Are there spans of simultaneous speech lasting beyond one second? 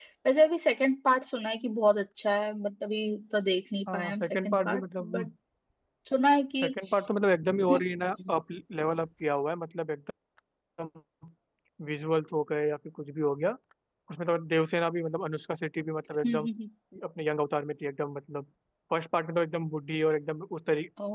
Yes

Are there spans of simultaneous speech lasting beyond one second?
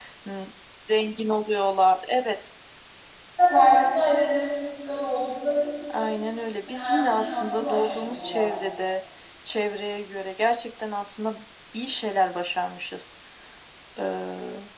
Yes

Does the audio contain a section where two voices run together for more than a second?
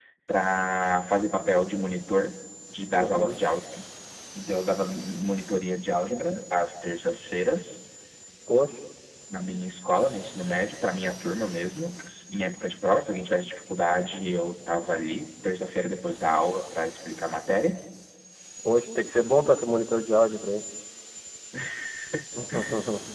No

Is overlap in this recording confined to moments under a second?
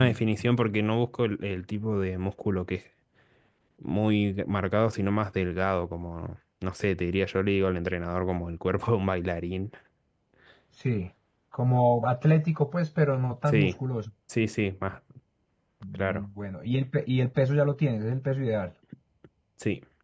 Yes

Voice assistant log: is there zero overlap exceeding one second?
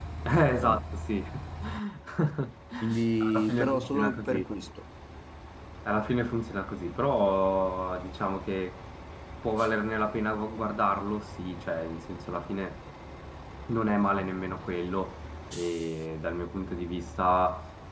No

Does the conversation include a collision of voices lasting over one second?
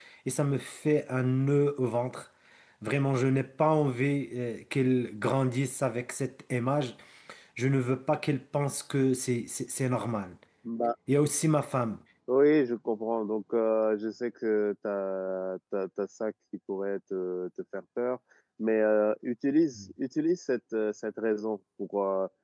No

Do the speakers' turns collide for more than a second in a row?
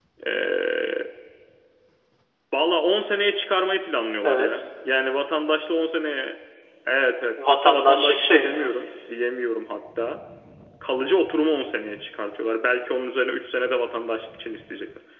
Yes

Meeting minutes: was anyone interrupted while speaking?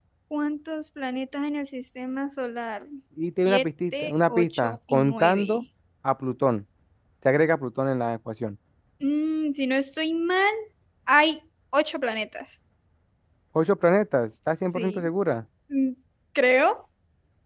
Yes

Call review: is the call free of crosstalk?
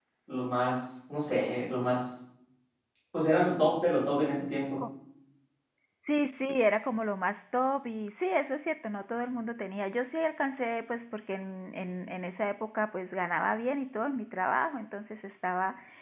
Yes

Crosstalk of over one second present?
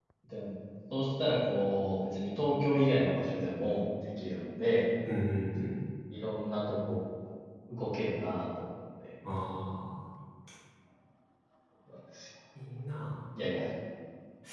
No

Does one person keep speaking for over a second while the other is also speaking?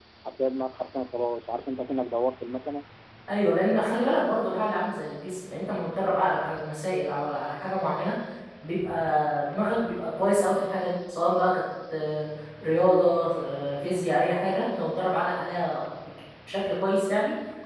No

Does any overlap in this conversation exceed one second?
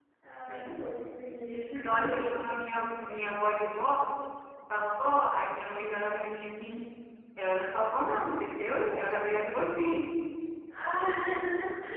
No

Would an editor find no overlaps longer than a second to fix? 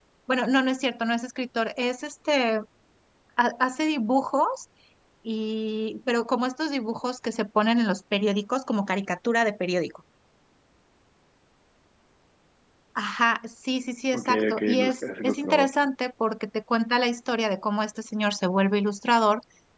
No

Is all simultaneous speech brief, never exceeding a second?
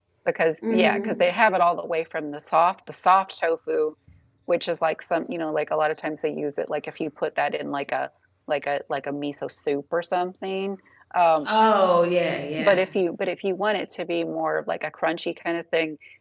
Yes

